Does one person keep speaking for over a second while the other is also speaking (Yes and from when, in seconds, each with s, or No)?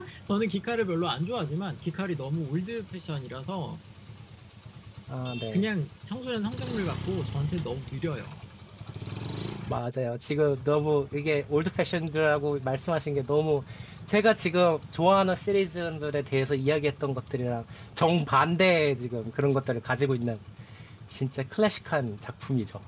No